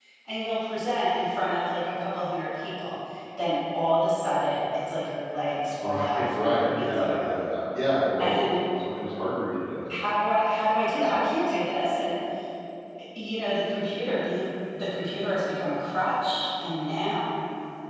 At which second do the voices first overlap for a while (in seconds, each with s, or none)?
5.8 s